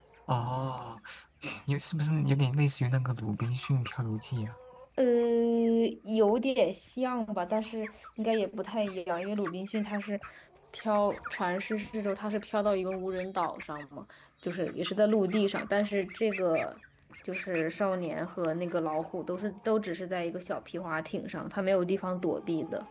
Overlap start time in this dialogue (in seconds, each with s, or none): none